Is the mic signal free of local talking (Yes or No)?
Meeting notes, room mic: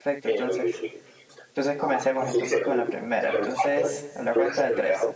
No